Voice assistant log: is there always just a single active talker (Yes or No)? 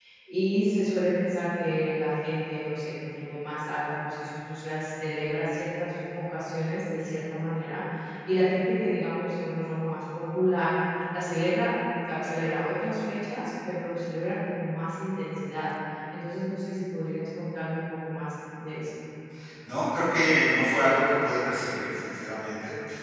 Yes